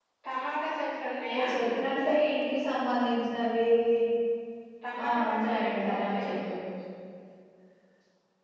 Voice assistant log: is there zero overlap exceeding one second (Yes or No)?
No